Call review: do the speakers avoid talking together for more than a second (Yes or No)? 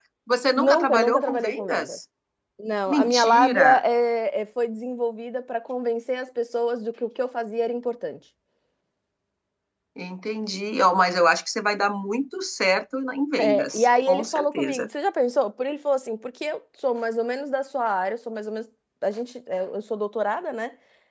No